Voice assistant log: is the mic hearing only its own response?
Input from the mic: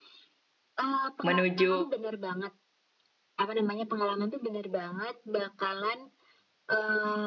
No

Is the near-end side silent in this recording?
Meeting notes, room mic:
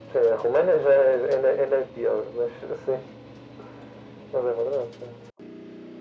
Yes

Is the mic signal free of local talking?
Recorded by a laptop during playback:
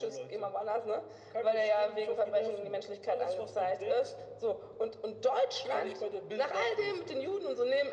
Yes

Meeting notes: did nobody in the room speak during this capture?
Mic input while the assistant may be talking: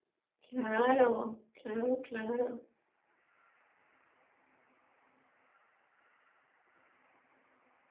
No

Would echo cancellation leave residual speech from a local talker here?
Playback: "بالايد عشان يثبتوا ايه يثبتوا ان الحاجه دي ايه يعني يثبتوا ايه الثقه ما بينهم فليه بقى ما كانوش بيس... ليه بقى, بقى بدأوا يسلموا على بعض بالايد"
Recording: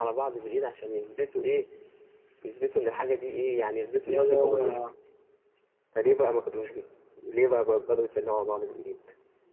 Yes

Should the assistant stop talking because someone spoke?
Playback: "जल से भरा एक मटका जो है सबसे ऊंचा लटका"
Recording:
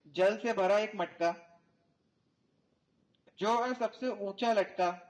No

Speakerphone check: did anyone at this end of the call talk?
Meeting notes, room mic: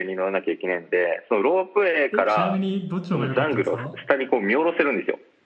Yes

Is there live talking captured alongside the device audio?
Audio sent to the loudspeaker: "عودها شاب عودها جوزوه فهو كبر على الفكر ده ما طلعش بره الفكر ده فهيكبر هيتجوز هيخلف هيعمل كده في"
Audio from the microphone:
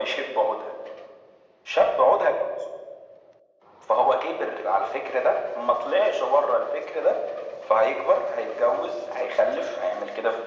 No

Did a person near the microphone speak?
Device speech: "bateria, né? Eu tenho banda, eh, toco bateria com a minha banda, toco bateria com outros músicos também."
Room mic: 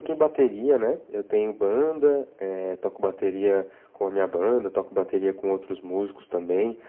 No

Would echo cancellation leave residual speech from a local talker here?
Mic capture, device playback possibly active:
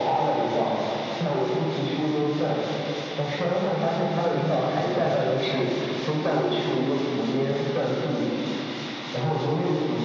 No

